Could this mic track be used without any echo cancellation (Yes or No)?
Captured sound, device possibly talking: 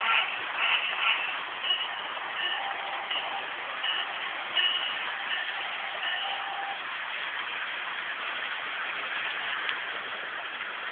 Yes